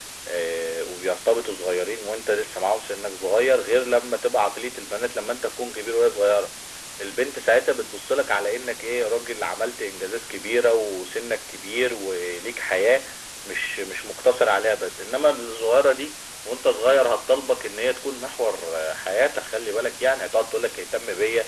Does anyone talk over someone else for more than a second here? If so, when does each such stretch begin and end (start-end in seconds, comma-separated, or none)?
none